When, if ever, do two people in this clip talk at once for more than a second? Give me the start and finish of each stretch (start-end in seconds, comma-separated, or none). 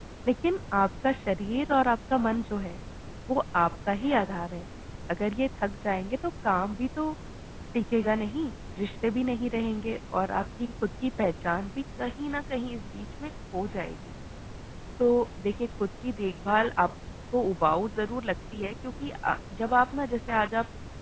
none